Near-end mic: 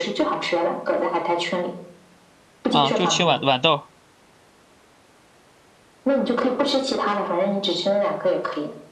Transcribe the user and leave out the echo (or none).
啊，就青豌豌豆，